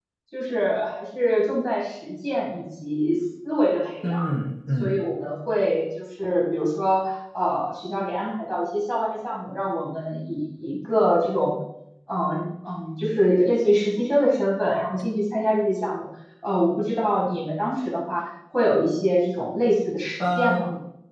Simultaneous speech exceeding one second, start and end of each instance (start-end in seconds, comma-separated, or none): none